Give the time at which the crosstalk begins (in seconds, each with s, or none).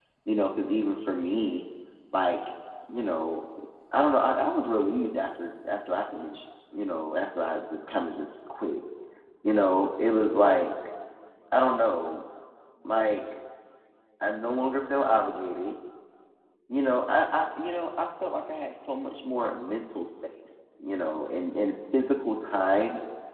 none